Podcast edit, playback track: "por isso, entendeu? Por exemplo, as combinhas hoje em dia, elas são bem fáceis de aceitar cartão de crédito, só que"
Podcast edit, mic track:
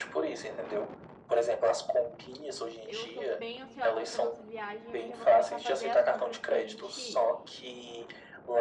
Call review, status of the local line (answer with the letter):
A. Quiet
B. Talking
B